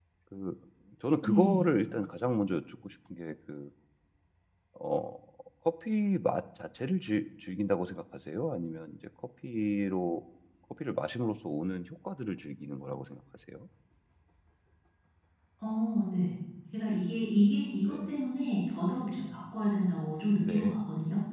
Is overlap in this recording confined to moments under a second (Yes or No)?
Yes